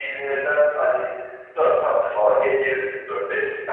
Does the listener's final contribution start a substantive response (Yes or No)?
No